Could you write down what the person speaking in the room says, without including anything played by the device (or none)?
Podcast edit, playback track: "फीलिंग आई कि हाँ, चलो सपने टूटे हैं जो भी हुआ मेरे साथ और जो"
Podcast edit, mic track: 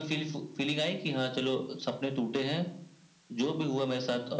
none